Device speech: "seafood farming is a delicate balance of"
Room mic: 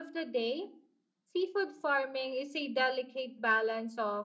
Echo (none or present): present